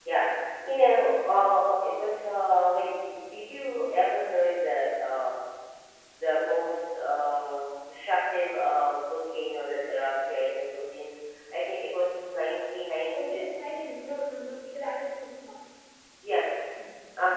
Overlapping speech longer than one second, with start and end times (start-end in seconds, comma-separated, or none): none